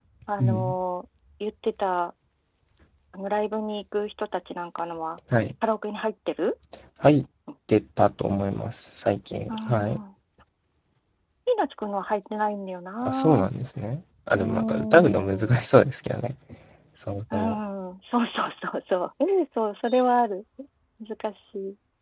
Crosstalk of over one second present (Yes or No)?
Yes